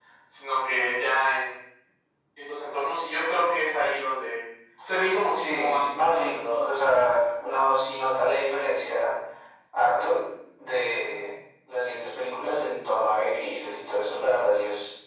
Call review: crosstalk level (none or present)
present